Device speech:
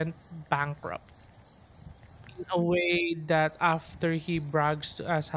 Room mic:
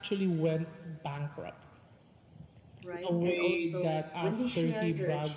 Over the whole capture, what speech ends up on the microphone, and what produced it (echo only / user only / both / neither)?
both